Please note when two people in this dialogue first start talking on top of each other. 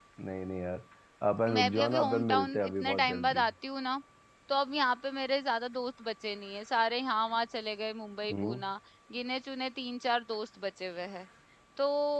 1.5 s

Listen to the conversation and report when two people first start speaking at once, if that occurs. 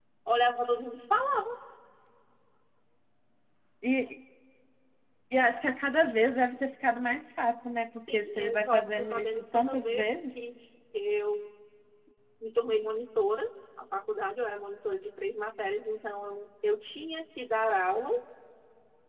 8.1 s

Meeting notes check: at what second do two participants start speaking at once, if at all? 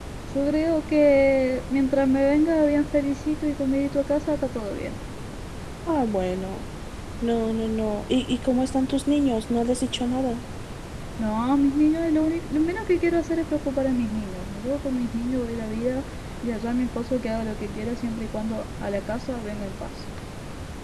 none

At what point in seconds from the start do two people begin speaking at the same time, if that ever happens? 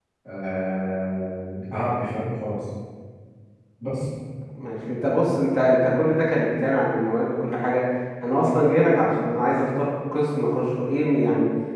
none

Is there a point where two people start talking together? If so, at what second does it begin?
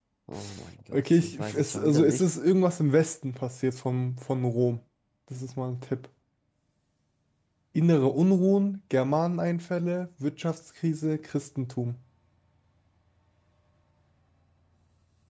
0.9 s

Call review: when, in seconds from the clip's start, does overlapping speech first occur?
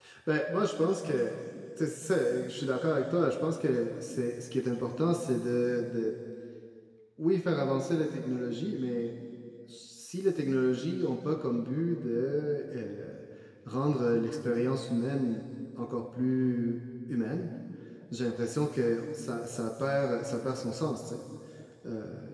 none

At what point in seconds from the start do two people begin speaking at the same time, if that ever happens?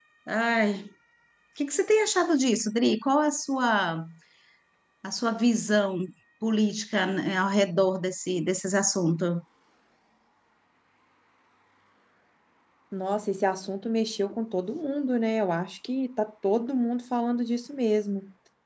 none

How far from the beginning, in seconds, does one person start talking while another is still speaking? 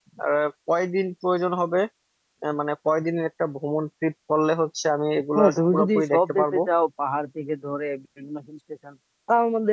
5.3 s

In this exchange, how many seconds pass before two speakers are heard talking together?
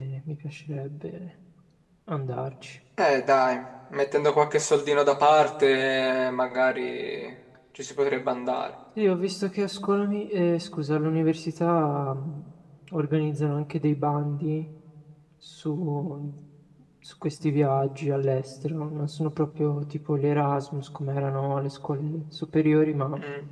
none

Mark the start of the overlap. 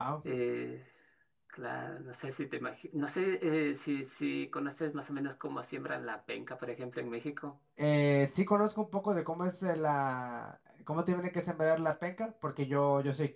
none

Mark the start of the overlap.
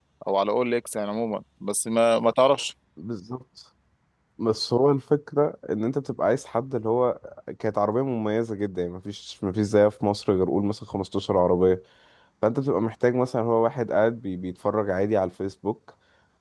none

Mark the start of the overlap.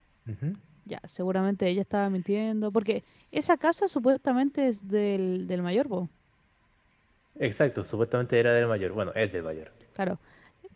none

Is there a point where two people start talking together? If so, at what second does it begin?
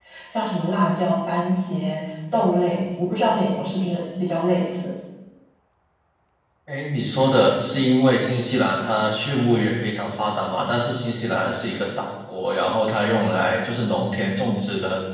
none

